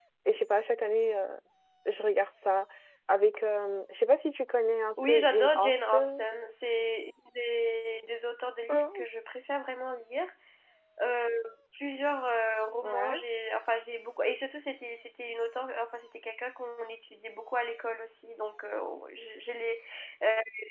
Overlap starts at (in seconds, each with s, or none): 5.0 s